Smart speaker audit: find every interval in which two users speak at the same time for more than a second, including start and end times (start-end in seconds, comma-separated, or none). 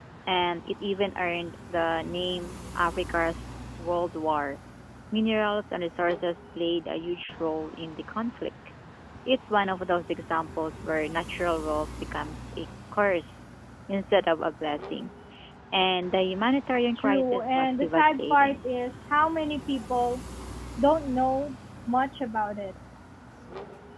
17.0-18.6